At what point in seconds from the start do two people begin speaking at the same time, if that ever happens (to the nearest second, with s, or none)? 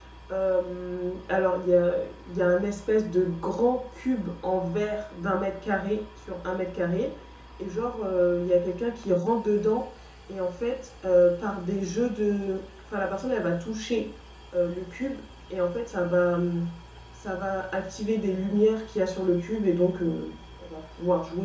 none